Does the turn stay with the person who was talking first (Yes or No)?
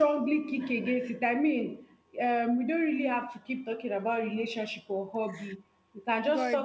Yes